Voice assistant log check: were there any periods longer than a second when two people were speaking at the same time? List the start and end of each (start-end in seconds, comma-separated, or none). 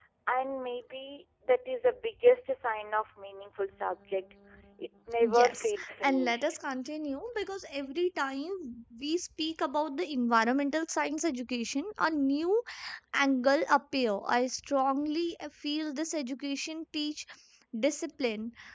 5.2-6.6